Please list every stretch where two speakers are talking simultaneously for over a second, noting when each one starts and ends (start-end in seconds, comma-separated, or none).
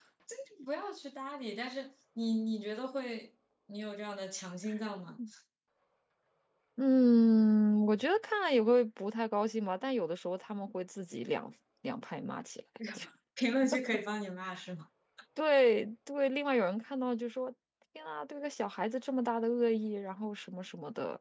none